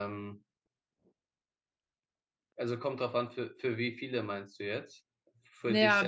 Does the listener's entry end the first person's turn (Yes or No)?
Yes